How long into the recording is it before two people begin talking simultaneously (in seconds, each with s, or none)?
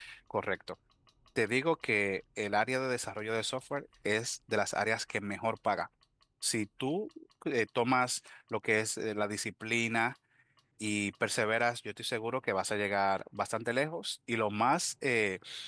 none